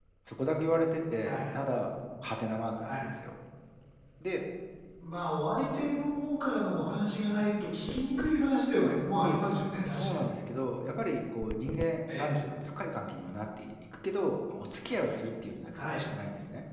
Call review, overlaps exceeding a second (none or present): none